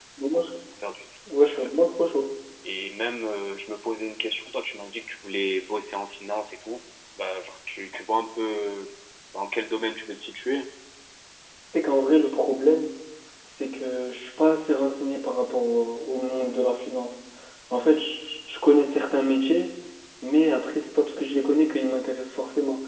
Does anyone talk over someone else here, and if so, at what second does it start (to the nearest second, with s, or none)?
none